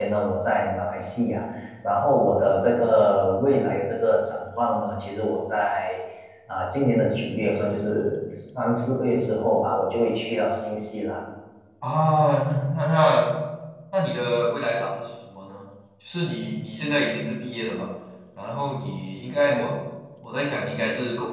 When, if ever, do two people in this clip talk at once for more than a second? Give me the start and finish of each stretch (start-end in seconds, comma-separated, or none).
none